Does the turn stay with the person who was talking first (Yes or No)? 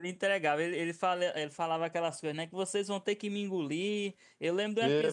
Yes